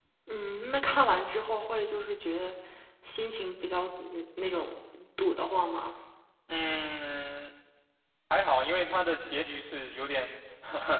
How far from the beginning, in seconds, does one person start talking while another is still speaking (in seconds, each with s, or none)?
none